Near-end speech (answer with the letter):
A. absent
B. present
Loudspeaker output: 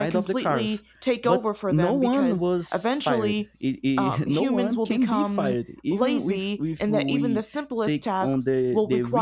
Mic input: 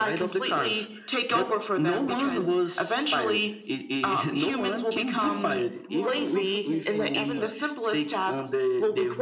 B